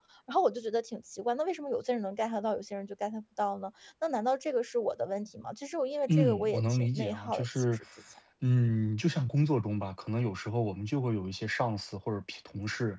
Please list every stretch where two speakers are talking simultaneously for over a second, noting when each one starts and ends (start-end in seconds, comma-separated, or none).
6.1-7.8